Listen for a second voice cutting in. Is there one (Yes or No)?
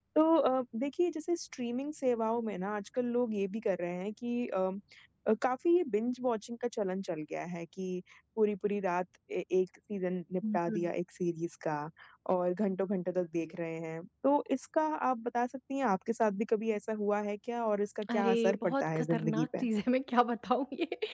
Yes